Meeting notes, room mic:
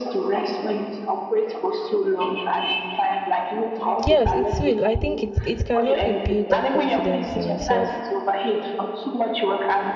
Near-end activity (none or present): present